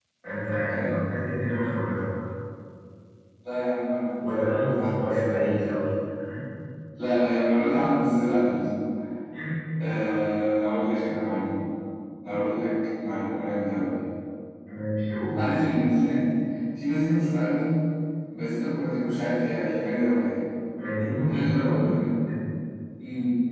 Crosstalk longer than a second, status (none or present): present